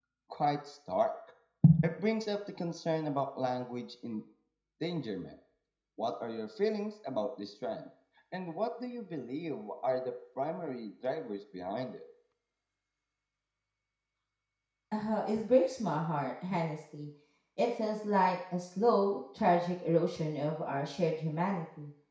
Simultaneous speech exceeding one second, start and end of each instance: none

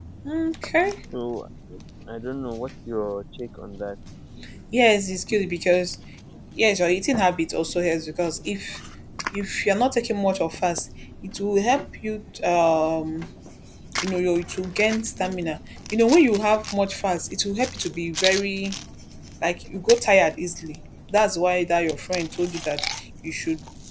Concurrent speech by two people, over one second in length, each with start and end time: none

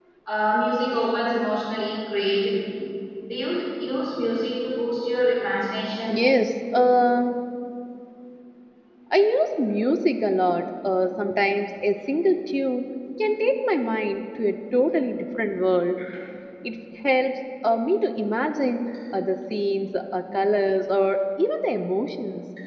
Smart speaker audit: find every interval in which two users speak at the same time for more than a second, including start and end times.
none

